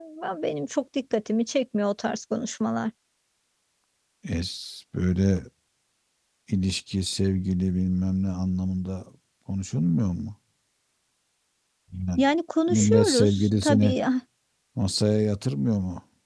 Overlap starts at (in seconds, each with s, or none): 12.7 s